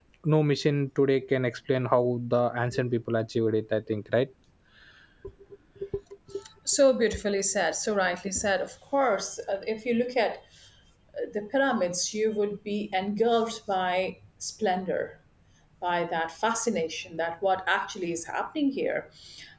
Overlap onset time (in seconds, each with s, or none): none